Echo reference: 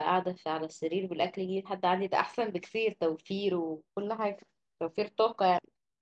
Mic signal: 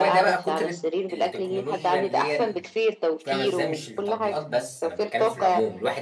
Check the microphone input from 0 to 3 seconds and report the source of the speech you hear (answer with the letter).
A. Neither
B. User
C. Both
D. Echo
C